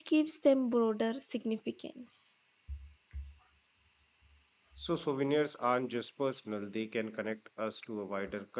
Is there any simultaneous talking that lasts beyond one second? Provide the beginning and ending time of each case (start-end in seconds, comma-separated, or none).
none